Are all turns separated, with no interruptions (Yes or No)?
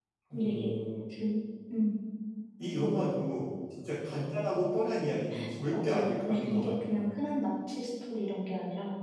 No